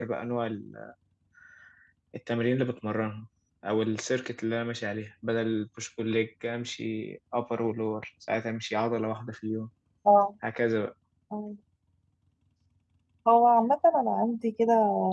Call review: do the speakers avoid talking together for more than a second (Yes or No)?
Yes